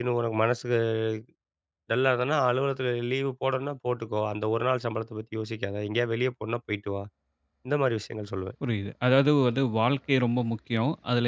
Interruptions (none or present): none